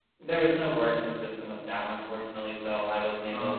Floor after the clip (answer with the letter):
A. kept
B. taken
A